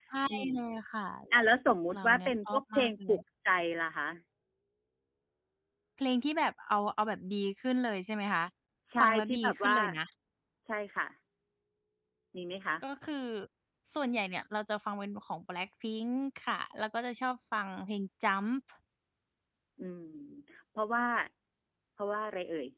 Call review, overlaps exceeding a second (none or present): present